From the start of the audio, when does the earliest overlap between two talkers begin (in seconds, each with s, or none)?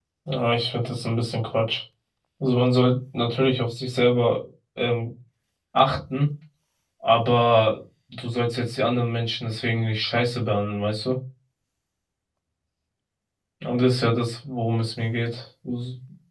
none